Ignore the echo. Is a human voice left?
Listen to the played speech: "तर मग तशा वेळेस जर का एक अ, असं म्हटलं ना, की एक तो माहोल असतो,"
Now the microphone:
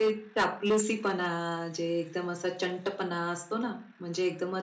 Yes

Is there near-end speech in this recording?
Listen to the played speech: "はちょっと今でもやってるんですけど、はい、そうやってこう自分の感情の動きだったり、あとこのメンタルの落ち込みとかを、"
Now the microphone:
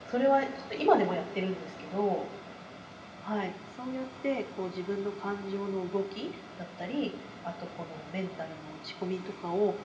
No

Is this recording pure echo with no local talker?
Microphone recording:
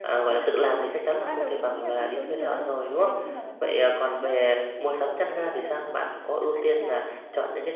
No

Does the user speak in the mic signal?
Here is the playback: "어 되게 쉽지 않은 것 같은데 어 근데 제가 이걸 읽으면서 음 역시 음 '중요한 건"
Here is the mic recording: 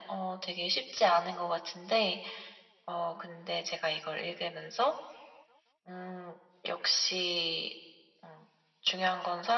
No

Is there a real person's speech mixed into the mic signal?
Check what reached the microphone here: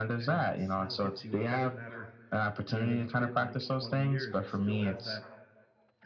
Yes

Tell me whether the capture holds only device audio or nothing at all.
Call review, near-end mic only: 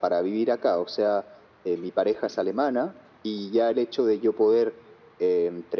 Yes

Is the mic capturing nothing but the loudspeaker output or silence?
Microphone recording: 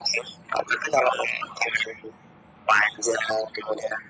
Yes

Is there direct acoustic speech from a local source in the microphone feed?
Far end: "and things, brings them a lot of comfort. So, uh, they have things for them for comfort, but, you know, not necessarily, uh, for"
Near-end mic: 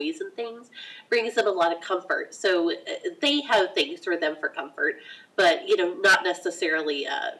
No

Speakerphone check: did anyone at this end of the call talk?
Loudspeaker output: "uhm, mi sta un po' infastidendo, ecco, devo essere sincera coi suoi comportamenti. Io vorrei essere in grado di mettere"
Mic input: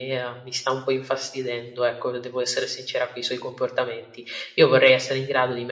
No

